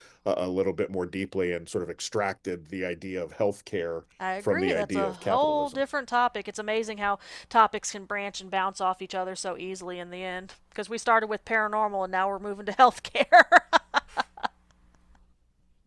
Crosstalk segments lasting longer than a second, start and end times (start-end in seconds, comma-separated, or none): 4.5-5.8